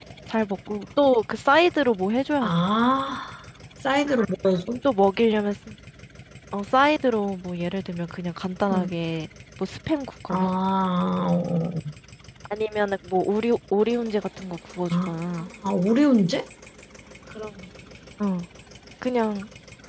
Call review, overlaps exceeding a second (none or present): none